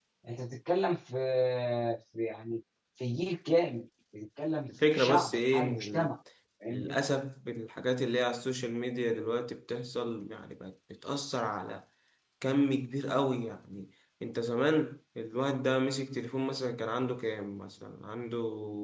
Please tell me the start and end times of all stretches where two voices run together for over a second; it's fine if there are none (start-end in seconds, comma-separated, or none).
4.7-6.1